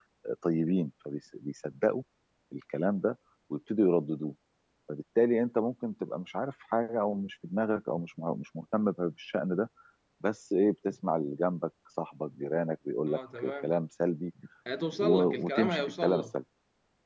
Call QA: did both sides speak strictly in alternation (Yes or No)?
No